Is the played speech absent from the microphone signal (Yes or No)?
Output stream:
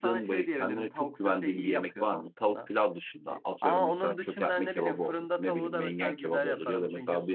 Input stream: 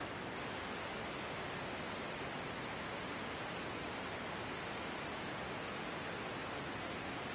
Yes